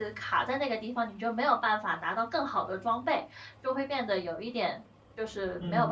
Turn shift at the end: Yes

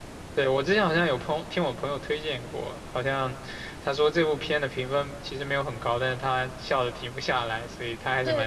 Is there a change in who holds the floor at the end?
Yes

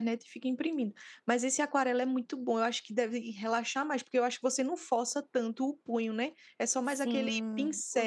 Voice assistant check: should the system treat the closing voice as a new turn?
Yes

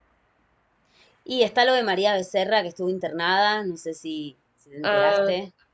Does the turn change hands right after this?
Yes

